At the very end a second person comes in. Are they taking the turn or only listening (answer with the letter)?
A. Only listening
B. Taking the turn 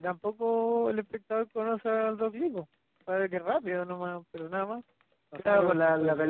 B